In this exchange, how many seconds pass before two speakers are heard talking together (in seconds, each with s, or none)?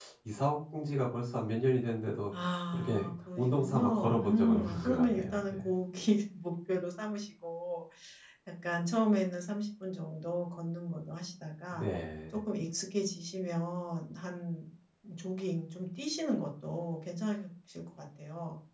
2.3 s